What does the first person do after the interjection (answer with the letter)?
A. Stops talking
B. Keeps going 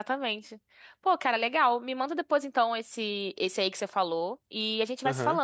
B